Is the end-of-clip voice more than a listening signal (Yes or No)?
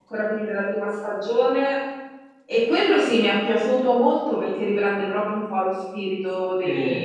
Yes